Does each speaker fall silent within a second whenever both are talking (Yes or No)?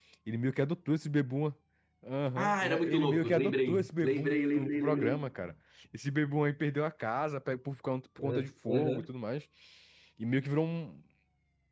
No